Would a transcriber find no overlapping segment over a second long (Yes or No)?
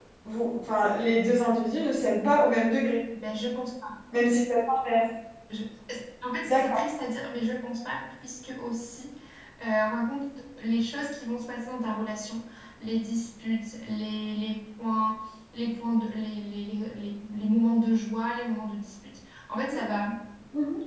Yes